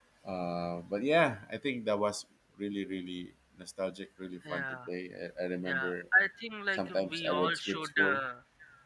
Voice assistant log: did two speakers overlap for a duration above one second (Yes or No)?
Yes